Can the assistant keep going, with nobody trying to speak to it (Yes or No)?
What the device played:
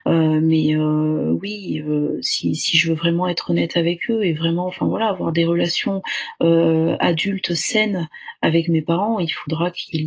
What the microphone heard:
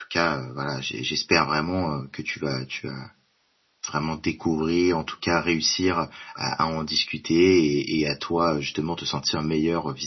No